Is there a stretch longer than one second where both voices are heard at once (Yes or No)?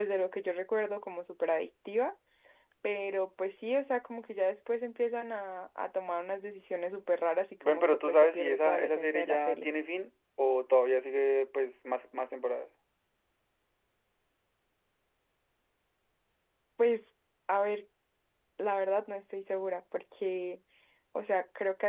Yes